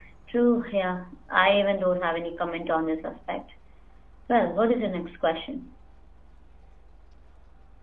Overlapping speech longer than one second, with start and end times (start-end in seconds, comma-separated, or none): none